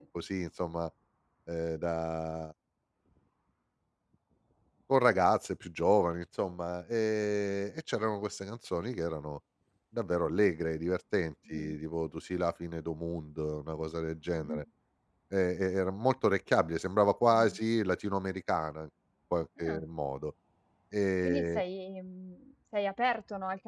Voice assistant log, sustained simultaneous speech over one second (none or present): none